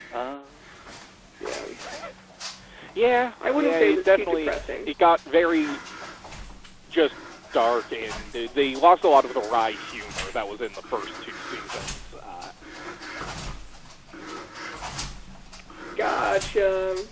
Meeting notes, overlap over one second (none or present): present